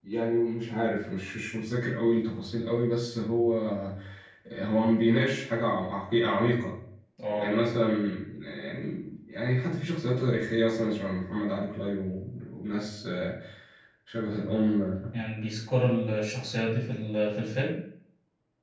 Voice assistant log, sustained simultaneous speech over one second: none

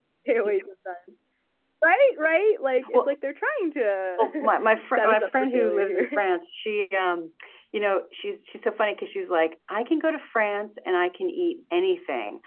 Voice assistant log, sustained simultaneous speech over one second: present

